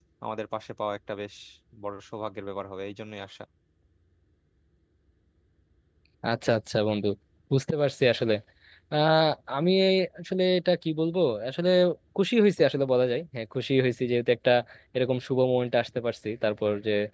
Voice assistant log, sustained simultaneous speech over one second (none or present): none